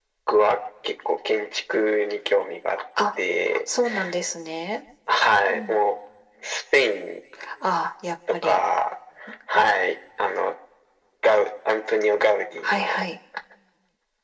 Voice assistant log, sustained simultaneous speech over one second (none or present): none